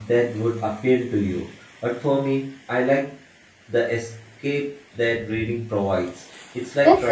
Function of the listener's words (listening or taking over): taking over